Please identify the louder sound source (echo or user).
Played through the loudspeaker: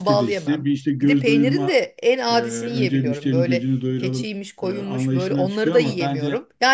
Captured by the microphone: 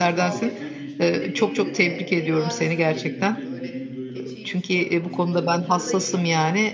user